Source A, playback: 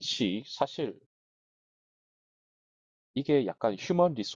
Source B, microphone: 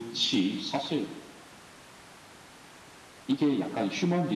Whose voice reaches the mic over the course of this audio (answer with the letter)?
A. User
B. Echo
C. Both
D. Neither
B